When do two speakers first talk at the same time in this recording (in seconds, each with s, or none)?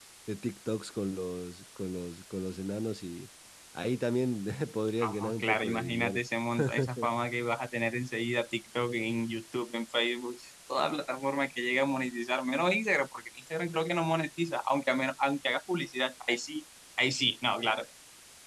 5.0 s